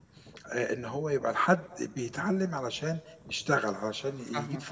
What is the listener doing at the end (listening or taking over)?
listening